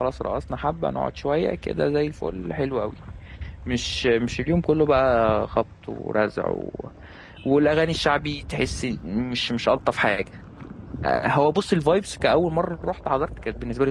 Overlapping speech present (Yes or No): No